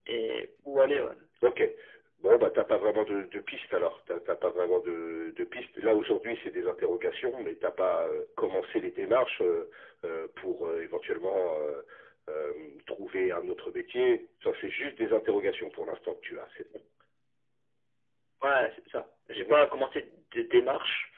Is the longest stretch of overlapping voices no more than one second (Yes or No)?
Yes